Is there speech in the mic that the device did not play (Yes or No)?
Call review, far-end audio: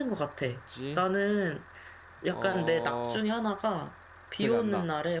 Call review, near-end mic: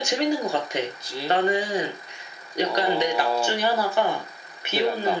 No